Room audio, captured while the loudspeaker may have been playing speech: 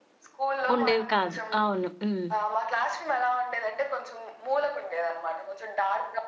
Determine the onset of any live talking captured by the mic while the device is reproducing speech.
1 s

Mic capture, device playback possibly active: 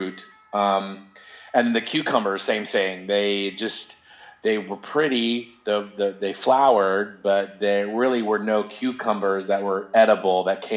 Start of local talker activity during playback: none

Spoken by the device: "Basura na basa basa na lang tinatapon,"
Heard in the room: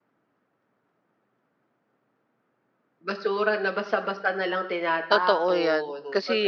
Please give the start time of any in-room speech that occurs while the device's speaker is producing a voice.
5 s

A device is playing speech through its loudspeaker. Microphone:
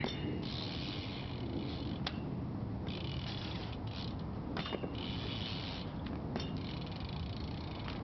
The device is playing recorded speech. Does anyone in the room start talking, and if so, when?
none

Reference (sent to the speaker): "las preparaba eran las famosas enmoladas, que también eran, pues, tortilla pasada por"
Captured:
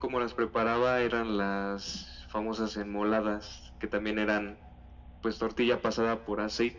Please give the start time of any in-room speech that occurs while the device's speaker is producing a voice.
none

